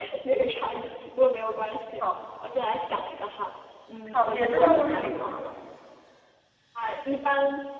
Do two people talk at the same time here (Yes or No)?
Yes